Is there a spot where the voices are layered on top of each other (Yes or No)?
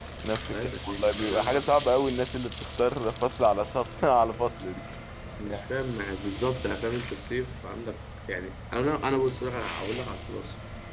Yes